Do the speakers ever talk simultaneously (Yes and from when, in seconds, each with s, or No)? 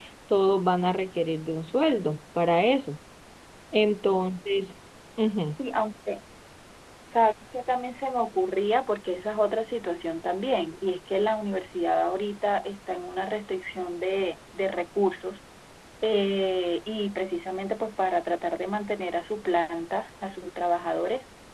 No